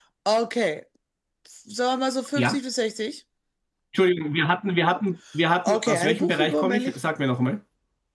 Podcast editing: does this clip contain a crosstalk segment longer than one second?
Yes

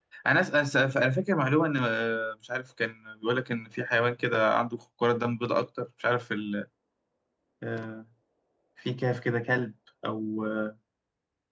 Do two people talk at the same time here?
No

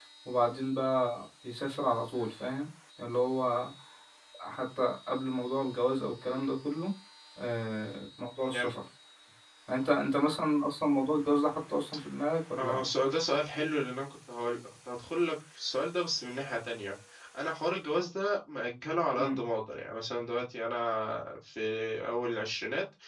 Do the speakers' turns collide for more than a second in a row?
No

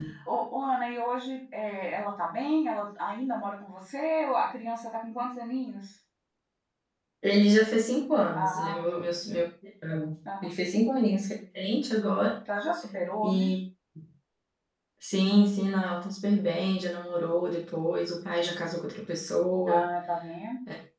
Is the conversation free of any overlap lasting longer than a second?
Yes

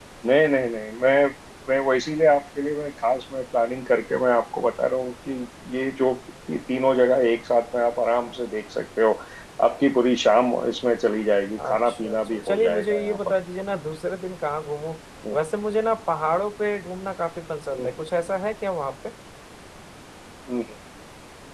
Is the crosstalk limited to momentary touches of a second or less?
No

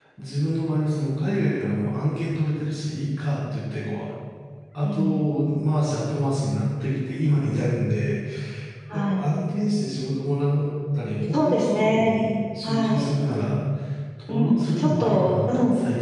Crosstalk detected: Yes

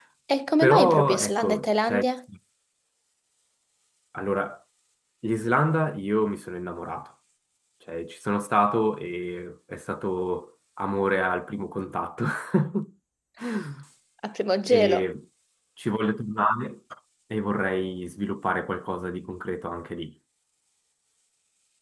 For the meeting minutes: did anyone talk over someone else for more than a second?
Yes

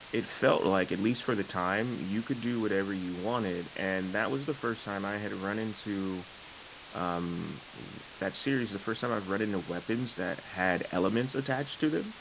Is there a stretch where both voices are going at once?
No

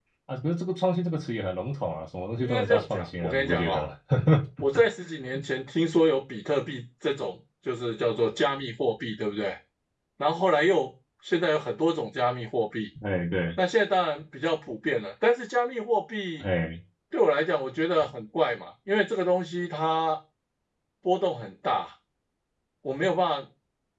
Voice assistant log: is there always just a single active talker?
No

